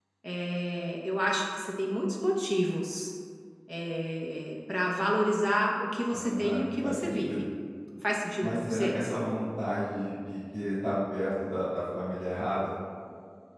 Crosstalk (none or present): present